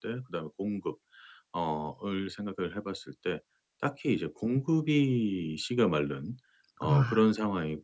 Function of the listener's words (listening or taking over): listening